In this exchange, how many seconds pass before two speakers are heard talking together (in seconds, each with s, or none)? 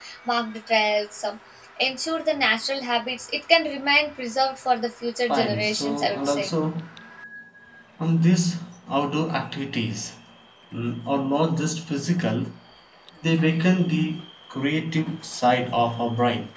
5.3 s